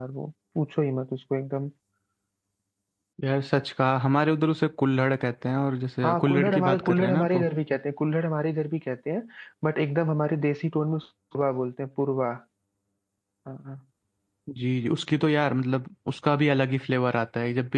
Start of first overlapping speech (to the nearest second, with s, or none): 6 s